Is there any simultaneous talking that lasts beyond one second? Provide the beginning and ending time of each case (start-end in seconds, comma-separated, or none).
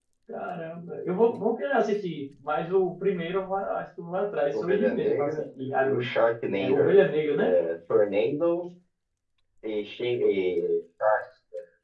4.5-6.1